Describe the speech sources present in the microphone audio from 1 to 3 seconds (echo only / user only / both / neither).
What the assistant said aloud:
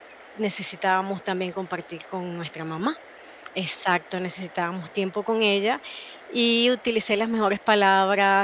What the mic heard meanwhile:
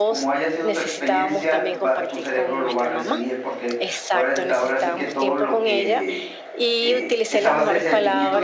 both